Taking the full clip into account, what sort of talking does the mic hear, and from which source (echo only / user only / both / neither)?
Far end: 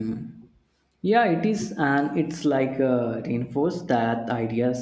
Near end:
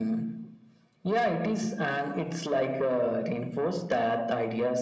echo only